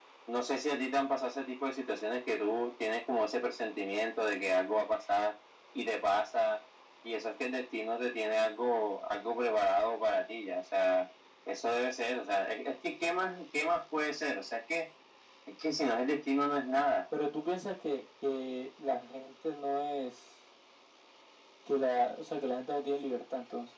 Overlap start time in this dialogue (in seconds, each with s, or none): none